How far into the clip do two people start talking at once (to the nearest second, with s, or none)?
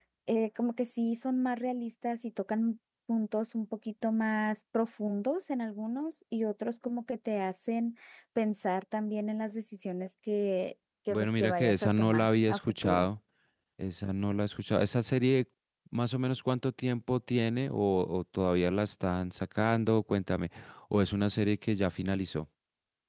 11 s